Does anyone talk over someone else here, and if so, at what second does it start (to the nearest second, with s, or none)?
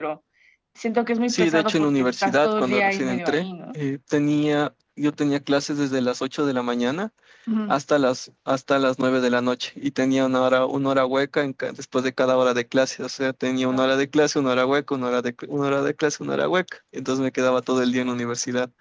1 s